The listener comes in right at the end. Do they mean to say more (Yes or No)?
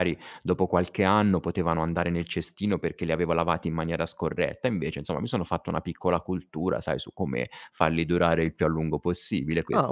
Yes